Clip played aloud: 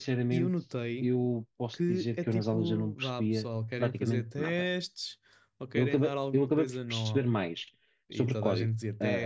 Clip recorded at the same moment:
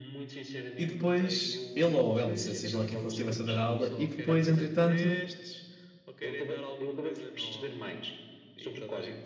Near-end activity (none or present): present